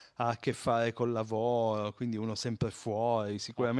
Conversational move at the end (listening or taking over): listening